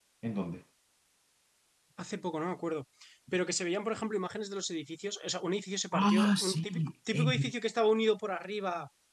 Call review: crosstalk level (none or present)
present